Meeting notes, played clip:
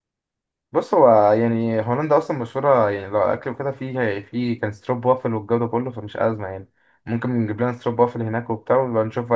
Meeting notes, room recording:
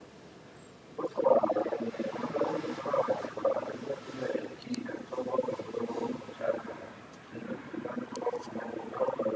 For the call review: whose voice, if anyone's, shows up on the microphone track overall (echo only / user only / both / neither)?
echo only